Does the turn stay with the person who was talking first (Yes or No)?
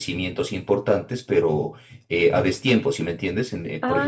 No